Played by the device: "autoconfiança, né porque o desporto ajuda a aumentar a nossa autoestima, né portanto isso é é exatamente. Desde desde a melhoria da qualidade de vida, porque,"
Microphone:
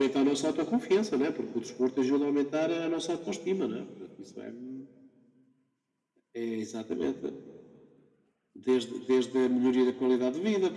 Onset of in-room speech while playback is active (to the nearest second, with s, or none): none